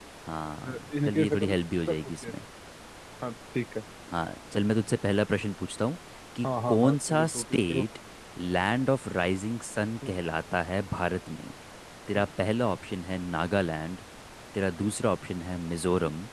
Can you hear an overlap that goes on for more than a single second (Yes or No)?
Yes